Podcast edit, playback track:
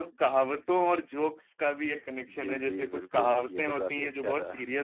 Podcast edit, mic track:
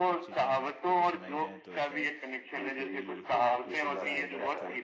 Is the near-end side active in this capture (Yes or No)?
Yes